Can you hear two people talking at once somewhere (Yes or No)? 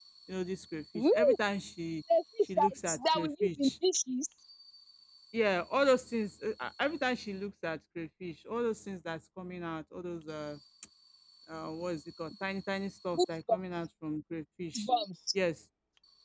Yes